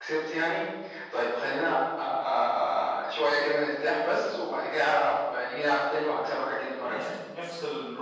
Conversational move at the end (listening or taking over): taking over